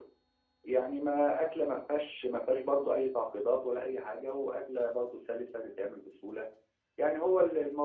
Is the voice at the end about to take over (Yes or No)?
No